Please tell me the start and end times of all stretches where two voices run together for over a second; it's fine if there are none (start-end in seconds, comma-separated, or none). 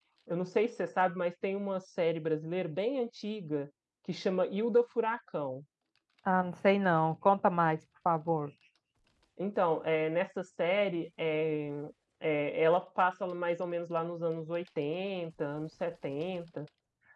none